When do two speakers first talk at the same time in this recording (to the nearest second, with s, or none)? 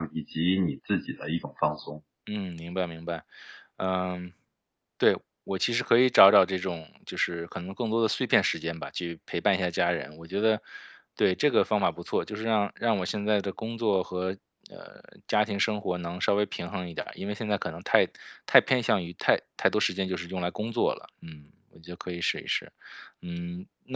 none